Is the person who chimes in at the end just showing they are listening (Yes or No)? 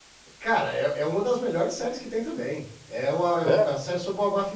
Yes